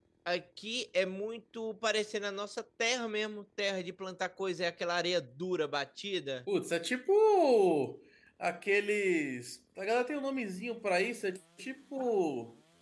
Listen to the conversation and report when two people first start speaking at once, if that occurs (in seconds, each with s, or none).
none